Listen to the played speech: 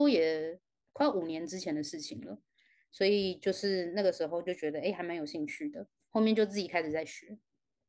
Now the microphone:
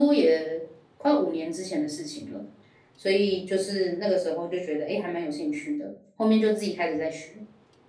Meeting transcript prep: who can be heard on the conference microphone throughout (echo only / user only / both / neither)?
echo only